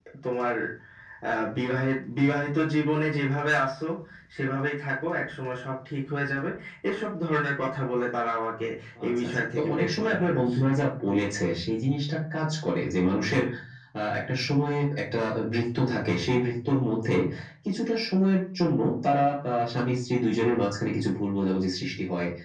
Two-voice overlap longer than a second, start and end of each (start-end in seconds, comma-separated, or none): 9.1-10.7